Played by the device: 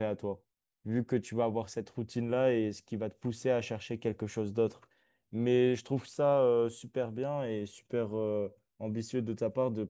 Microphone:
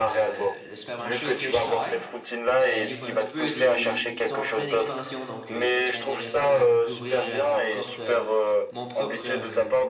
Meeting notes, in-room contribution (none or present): present